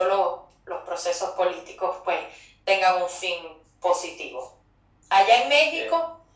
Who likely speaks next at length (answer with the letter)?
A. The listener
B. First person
B